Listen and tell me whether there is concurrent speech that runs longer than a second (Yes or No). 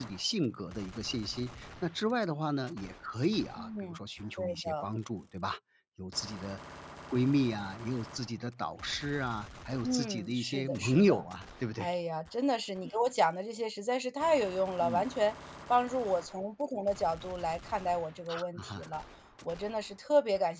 Yes